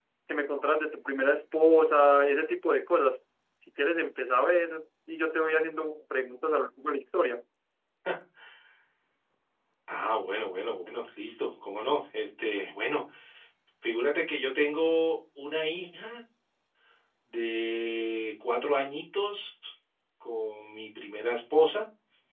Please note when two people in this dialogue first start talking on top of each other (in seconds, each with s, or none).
none